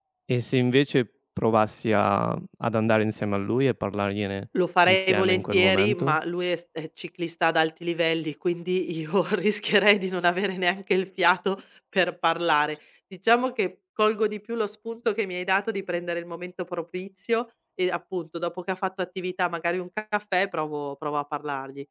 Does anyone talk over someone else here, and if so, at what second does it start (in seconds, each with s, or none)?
4.9 s